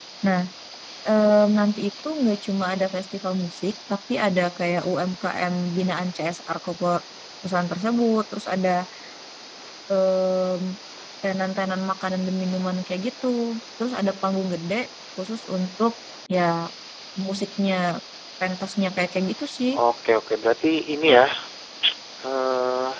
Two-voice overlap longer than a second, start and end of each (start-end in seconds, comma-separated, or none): none